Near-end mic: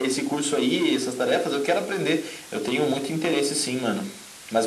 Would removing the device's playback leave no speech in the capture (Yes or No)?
Yes